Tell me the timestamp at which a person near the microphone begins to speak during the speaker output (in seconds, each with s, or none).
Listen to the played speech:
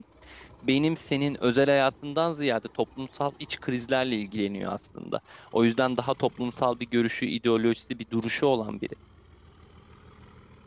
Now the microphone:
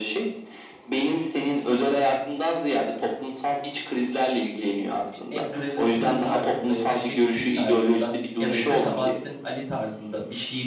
5.1 s